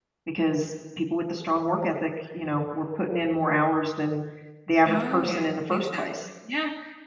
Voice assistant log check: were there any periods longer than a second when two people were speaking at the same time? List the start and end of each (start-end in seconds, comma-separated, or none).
4.8-6.3